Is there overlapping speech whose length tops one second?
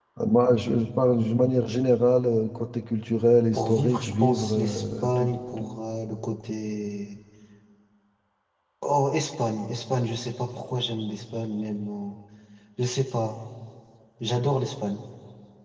Yes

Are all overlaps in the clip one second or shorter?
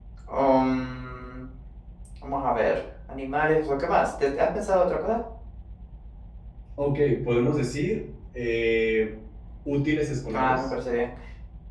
Yes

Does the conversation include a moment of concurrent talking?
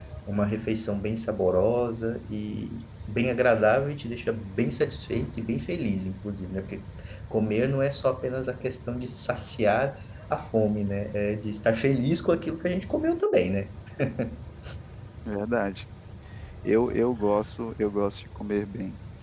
No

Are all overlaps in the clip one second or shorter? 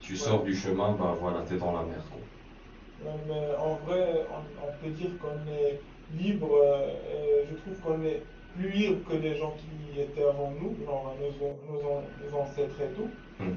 Yes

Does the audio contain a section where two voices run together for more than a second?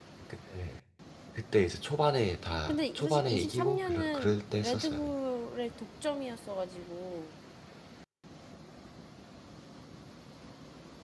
Yes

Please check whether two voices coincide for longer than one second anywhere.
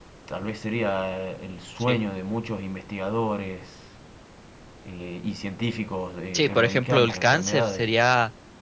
Yes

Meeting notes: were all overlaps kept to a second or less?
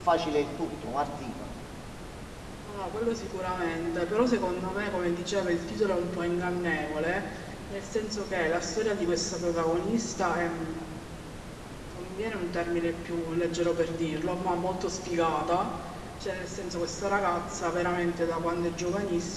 Yes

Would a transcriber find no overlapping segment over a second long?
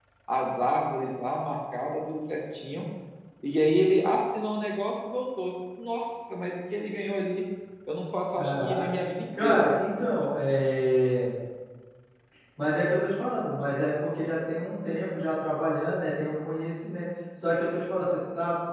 Yes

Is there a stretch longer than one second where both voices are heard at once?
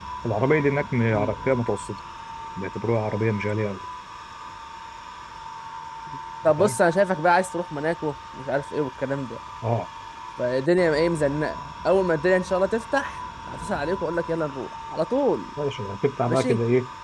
No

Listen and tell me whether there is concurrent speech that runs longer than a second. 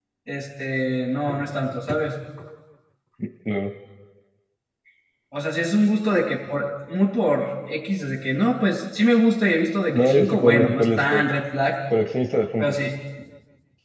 Yes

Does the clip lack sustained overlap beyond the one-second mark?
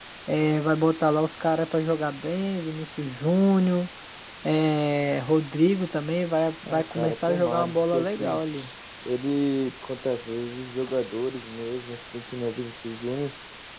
No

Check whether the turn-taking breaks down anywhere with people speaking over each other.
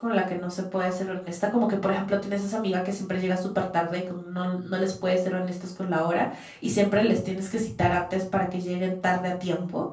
No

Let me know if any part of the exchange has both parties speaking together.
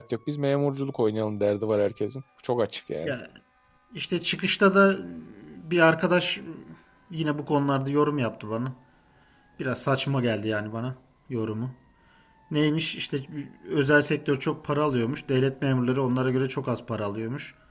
No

